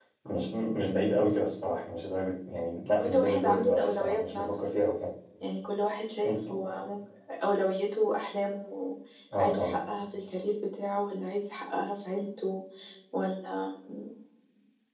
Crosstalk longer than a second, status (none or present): present